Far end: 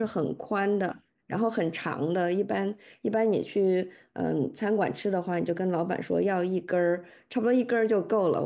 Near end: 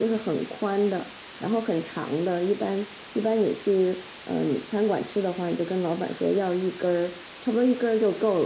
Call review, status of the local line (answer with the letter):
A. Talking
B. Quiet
B